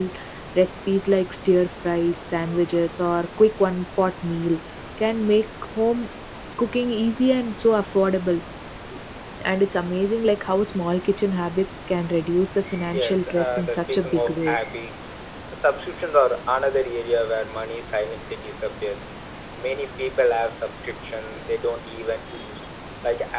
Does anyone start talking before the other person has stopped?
Yes, from 12.7 s

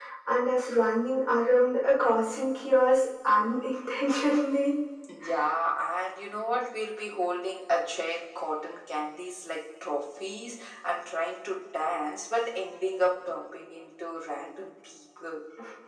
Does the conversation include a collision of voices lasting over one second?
No

